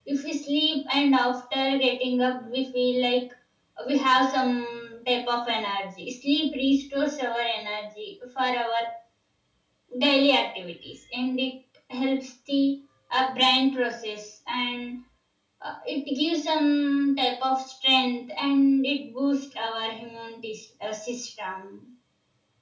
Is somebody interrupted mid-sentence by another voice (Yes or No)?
No